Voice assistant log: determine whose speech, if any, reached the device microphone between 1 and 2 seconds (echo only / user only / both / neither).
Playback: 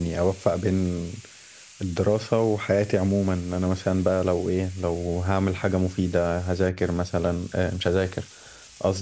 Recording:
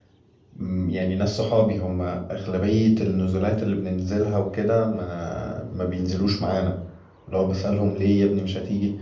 user only